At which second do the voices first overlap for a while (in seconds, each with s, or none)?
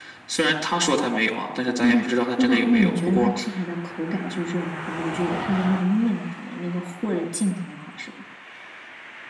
1.8 s